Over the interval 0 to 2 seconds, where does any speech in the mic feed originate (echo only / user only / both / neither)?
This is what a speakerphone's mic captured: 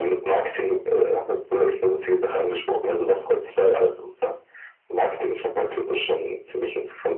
echo only